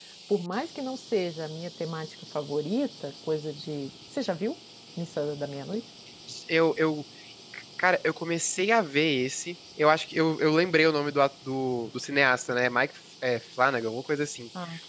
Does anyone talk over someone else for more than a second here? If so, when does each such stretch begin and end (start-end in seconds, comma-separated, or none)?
none